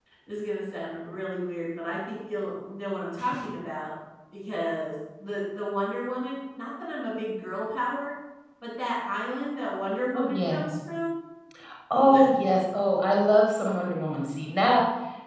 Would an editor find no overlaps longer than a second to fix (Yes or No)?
Yes